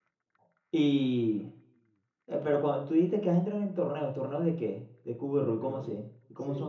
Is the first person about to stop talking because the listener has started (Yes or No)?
Yes